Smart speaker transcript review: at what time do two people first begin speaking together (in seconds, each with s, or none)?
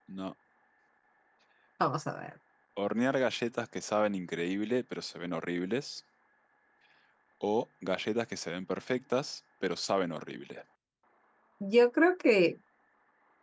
none